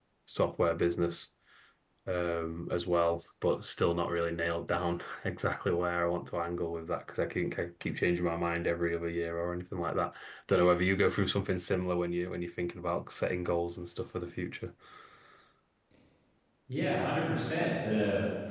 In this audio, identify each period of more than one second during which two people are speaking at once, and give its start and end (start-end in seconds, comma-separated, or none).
none